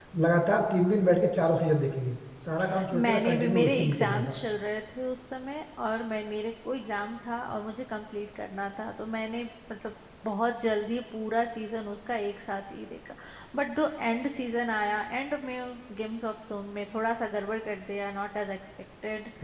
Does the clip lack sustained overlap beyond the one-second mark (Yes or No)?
No